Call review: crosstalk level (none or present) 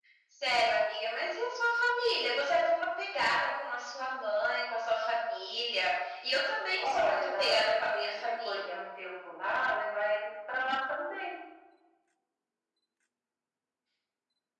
present